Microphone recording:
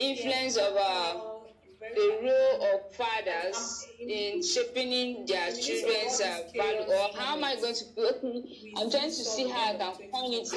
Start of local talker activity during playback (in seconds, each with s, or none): none